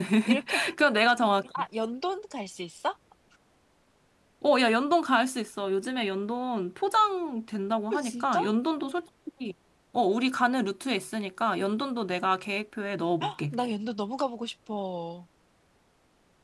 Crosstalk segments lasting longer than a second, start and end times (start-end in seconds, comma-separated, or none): none